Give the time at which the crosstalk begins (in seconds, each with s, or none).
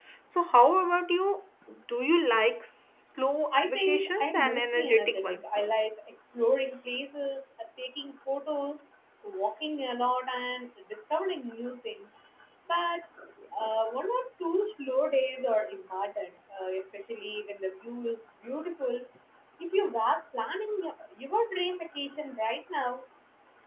3.5 s